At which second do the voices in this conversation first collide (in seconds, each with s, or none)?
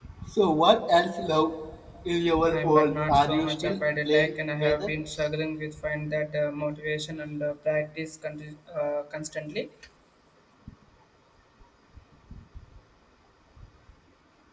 2.5 s